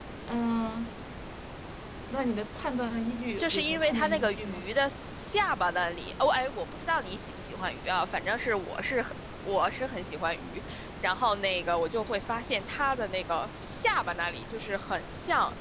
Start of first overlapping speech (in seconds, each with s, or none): 3.4 s